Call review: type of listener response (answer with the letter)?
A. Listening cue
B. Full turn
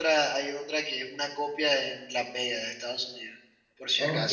B